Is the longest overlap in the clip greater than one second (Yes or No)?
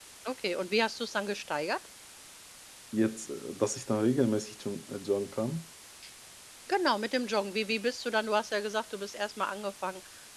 No